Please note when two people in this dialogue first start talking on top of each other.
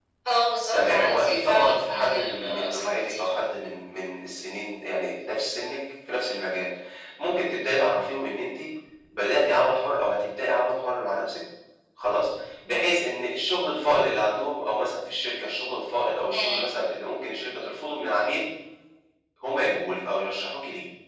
0.7 s

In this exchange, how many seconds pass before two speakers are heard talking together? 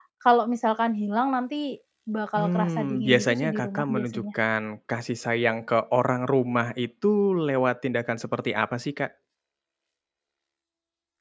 2.4 s

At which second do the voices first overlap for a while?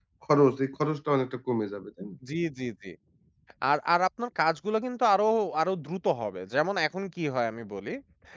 none

